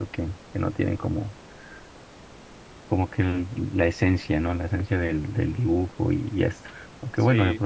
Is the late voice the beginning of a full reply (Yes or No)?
No